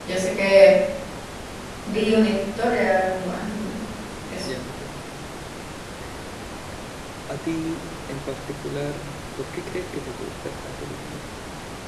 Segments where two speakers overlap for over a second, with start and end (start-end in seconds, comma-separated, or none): none